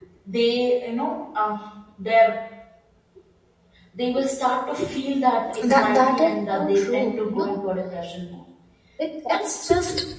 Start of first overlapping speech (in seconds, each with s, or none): 5.6 s